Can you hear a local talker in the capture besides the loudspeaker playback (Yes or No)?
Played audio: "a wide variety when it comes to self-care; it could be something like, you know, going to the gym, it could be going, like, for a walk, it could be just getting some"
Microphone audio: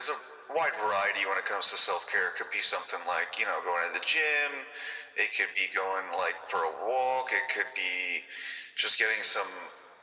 No